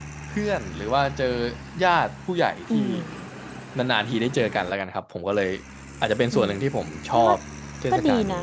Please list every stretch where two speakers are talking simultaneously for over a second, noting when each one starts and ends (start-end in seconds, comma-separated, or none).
none